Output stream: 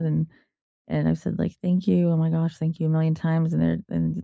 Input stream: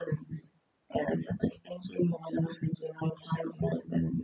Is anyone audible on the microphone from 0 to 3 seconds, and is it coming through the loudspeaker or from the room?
echo only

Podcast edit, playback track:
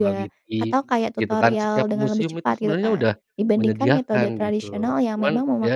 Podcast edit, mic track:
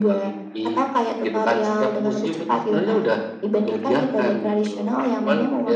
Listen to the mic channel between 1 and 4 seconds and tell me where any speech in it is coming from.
echo only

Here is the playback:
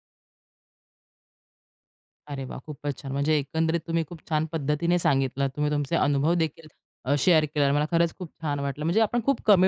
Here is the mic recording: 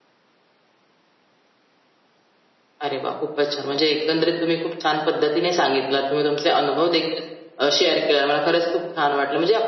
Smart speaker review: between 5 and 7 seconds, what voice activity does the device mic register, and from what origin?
echo only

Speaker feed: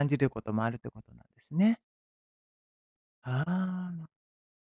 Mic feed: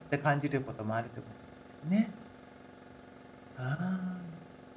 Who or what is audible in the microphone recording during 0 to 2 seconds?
echo only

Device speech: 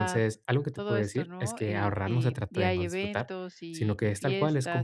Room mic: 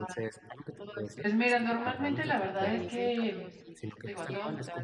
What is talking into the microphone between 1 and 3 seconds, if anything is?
both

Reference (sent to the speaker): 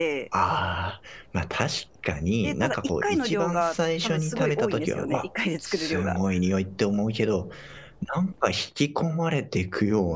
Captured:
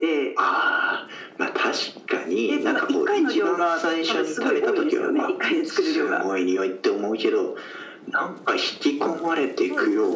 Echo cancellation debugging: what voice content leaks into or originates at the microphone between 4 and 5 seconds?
echo only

